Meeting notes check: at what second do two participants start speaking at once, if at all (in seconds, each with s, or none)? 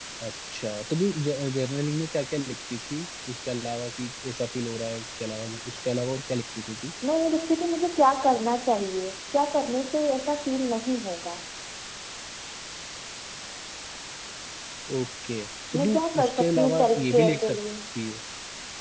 15.7 s